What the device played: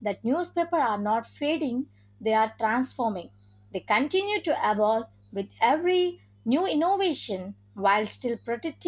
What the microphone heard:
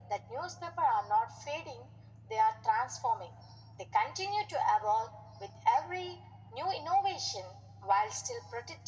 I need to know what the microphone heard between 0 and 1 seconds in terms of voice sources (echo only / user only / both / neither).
echo only